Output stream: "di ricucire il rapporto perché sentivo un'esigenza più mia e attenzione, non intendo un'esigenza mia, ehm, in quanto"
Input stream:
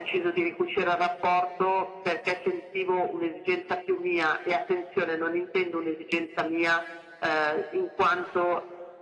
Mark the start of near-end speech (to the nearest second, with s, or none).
none